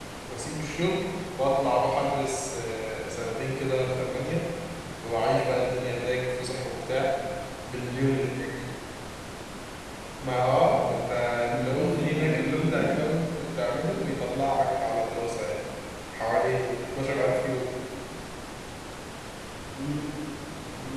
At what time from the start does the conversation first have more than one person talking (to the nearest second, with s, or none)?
12 s